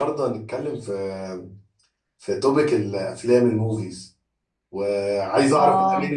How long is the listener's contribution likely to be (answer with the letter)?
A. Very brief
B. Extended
A